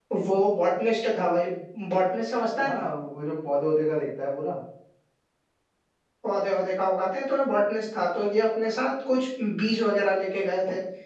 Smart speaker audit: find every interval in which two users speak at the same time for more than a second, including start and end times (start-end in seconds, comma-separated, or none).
none